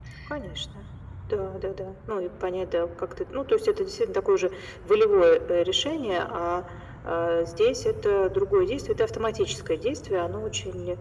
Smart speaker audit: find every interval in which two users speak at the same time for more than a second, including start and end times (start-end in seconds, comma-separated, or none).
none